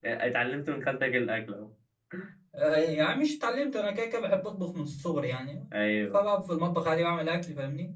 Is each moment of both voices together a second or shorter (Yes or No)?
Yes